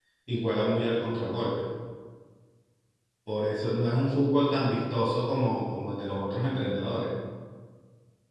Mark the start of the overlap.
none

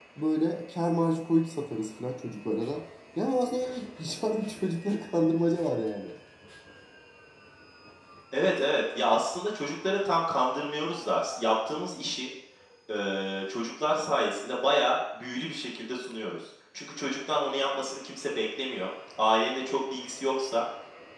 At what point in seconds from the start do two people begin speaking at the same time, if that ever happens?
none

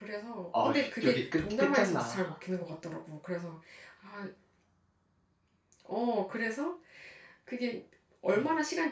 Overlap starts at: 0.6 s

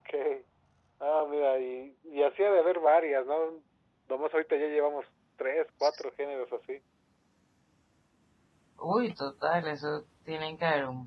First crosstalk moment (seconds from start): none

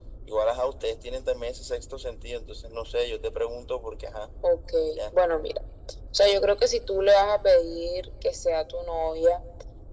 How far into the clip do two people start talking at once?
none

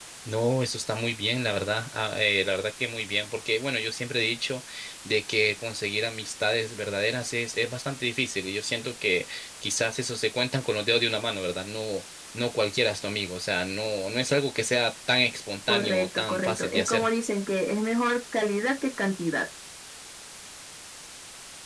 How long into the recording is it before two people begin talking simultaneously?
15.7 s

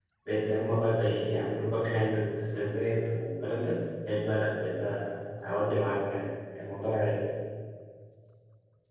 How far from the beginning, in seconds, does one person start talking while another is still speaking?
none

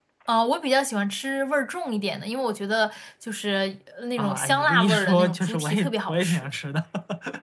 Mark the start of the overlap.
4.2 s

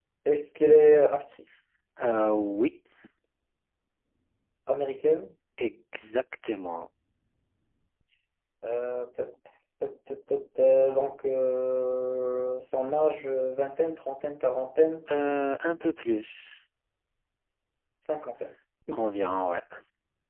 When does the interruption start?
none

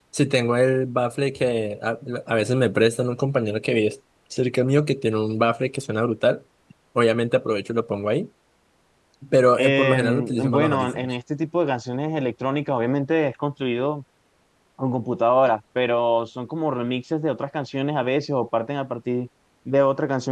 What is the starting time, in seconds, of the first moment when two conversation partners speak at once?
9.6 s

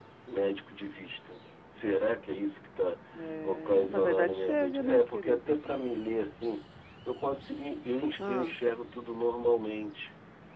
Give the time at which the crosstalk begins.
3.4 s

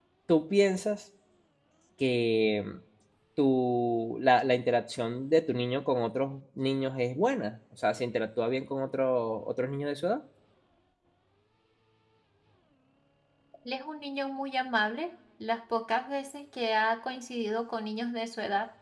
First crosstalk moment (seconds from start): none

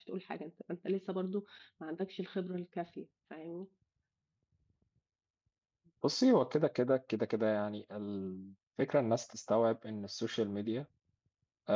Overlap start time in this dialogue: none

